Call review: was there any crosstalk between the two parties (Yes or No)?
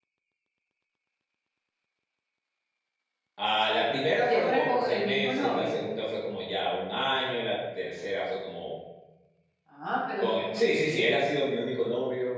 Yes